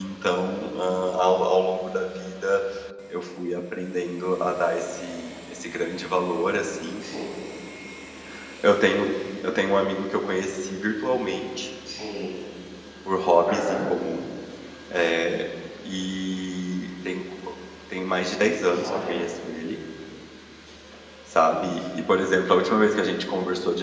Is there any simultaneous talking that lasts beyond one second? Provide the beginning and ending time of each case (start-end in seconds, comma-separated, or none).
none